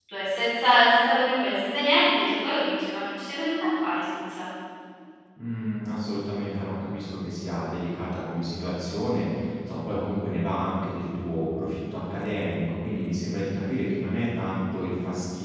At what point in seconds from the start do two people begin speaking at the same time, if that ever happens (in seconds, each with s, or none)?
none